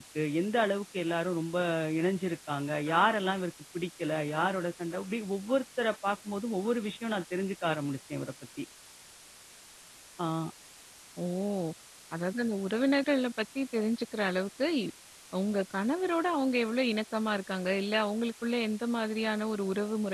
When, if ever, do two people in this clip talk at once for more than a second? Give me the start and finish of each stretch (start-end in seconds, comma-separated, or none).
none